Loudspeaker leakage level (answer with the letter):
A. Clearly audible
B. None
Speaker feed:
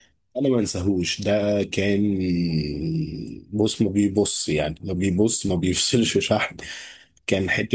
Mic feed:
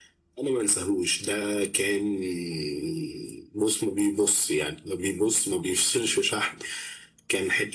A